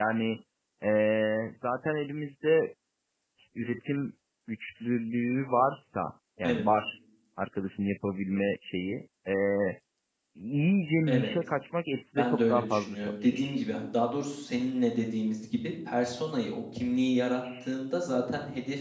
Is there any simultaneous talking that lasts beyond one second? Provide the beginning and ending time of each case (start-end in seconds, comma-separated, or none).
12.2-13.6